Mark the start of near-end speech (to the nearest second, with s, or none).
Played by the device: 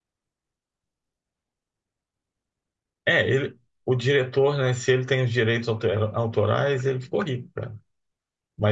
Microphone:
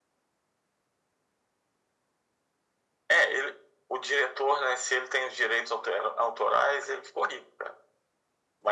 none